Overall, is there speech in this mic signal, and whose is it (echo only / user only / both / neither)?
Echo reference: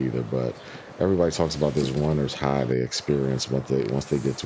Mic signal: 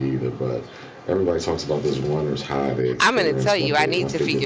both